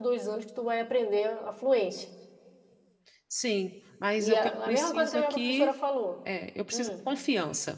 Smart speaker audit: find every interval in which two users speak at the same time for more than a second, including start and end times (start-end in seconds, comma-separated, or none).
4.2-5.7